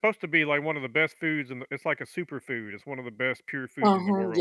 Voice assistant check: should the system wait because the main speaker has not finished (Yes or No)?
No